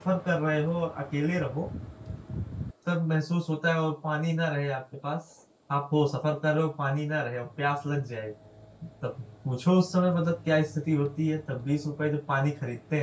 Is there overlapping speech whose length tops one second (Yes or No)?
No